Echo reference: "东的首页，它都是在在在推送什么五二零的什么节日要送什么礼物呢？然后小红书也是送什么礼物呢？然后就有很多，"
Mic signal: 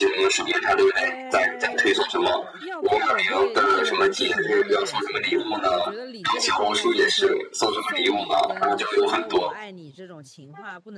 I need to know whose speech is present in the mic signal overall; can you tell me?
both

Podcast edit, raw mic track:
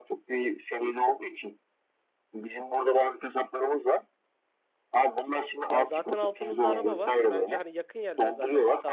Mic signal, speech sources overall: both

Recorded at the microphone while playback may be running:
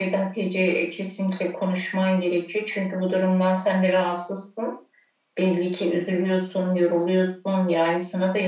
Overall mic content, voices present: echo only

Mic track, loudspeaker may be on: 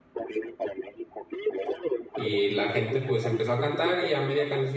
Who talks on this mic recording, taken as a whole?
both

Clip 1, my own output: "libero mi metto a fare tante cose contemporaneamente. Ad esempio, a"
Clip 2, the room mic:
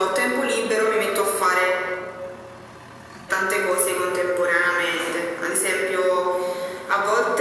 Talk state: echo only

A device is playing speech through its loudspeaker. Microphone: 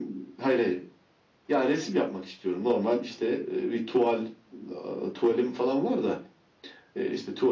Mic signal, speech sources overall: echo only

